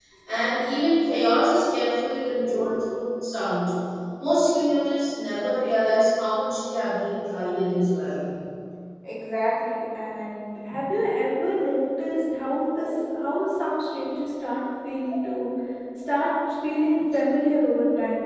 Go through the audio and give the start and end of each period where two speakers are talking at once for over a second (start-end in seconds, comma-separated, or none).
none